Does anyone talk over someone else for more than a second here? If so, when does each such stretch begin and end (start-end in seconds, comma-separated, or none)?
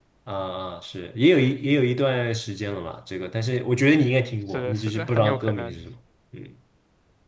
4.0-5.8